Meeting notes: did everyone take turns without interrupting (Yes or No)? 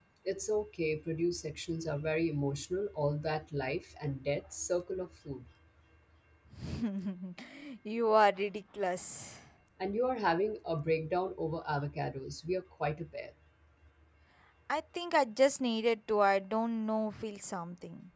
Yes